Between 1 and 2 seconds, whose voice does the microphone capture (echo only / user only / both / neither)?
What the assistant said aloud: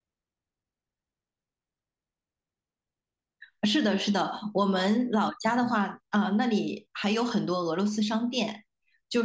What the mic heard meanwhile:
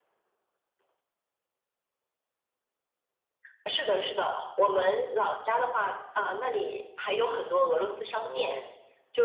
neither